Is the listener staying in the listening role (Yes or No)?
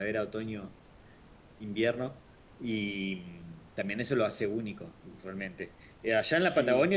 Yes